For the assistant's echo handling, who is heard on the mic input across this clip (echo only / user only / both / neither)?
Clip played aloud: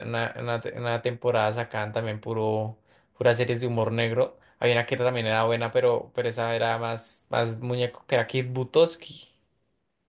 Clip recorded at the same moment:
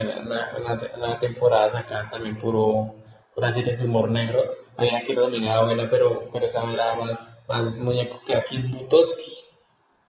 echo only